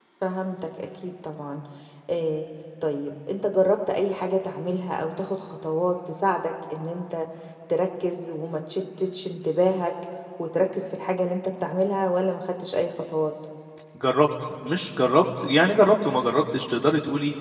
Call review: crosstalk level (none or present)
none